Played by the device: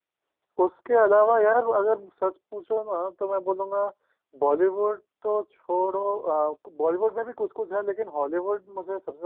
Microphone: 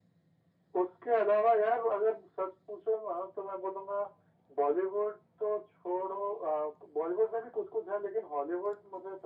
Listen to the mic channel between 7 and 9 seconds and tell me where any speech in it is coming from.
echo only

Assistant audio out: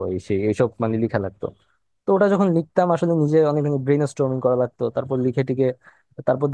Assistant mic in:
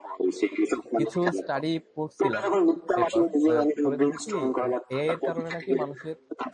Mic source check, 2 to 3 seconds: both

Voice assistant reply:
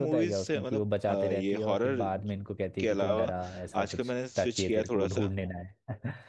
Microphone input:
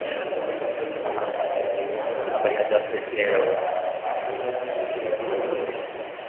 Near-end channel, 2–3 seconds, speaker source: both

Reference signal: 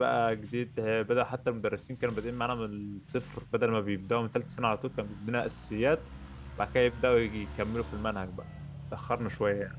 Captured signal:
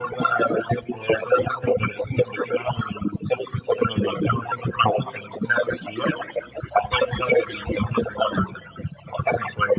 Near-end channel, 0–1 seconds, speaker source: echo only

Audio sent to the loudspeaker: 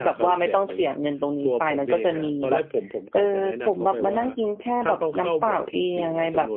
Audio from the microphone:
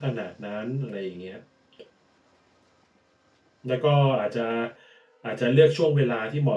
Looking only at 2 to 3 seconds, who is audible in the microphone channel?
neither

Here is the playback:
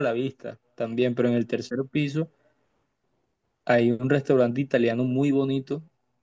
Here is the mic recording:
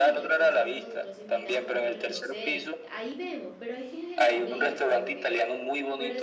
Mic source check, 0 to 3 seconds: both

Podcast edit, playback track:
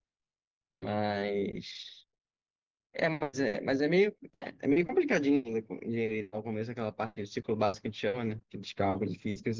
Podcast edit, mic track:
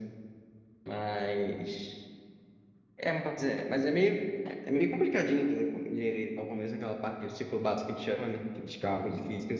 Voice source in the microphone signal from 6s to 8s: echo only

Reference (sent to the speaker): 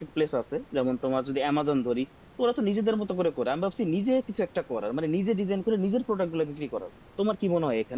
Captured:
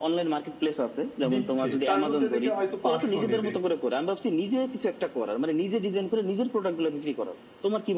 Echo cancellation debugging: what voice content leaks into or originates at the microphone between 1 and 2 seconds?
both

